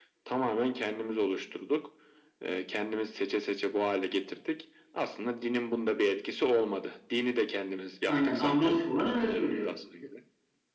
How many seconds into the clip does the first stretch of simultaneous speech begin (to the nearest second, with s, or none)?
8 s